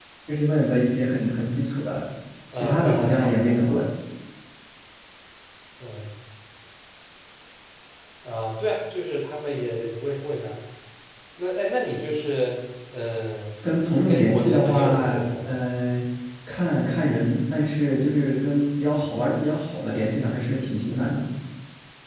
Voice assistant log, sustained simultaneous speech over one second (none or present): present